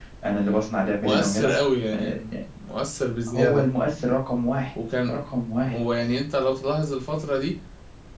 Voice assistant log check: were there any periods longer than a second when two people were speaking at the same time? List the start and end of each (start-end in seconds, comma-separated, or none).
none